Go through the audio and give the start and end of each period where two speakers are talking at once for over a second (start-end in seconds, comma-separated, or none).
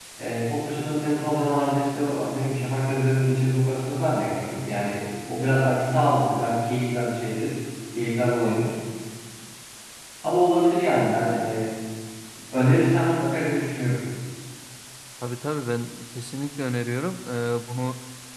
none